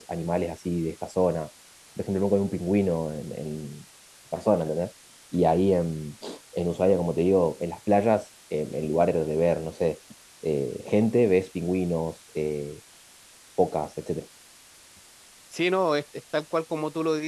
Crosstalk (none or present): none